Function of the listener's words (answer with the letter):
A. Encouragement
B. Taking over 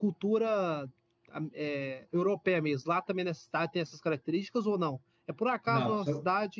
A